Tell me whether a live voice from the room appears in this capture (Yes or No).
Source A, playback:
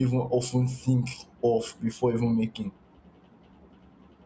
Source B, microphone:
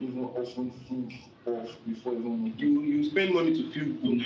Yes